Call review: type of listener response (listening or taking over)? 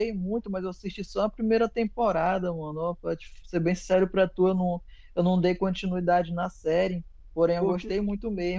listening